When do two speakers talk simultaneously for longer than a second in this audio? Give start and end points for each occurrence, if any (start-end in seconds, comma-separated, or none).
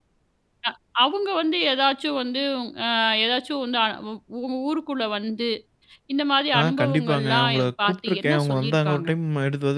6.6-9.1